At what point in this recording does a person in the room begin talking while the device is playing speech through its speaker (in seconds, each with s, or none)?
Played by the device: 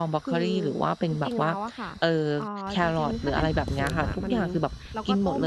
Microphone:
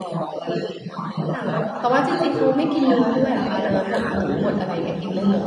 1.3 s